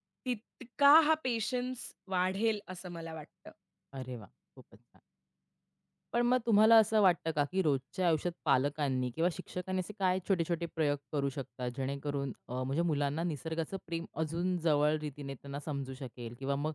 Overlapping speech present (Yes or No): No